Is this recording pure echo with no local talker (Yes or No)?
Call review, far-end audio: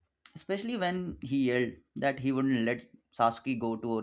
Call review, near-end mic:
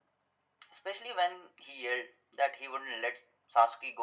Yes